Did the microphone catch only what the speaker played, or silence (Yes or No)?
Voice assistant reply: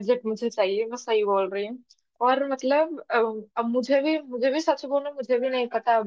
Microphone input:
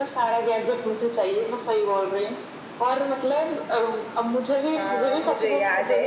No